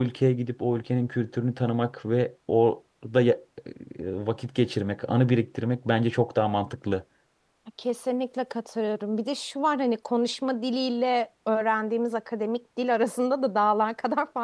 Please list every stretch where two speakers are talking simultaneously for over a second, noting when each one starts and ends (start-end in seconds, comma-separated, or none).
none